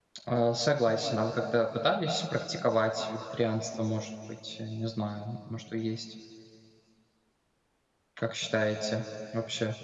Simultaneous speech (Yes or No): No